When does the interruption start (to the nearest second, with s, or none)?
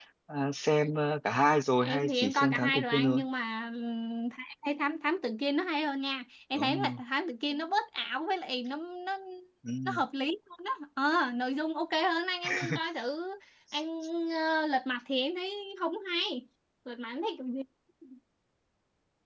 2 s